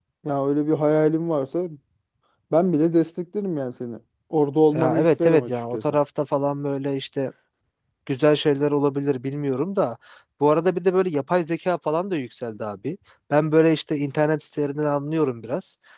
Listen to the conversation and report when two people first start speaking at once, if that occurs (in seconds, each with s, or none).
4.7 s